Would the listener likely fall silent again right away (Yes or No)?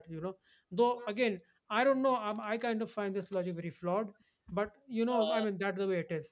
Yes